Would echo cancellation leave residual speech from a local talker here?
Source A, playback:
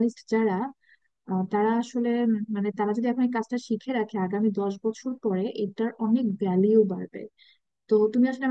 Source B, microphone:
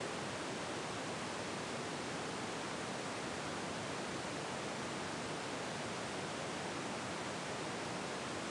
No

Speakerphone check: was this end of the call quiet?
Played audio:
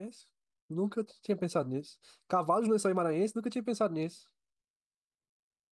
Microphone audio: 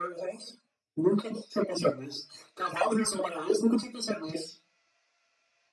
Yes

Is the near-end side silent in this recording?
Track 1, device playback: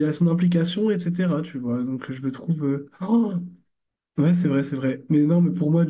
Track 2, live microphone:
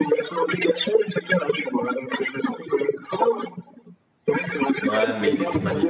No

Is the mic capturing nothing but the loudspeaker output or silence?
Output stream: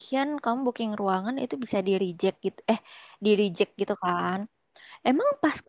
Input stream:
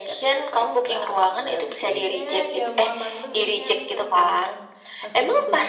No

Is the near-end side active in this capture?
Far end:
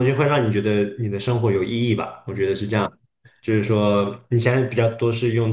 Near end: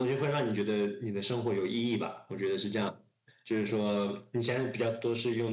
No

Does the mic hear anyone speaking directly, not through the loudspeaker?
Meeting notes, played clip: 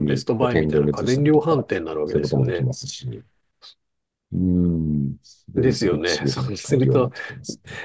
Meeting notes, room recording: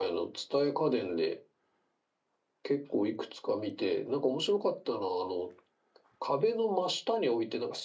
Yes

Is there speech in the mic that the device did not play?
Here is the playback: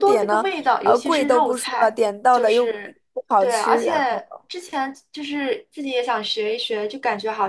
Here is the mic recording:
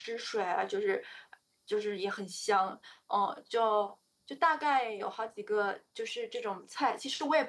Yes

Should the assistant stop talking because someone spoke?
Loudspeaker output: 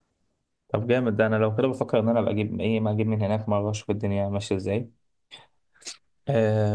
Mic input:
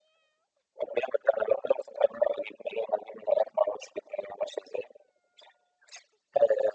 No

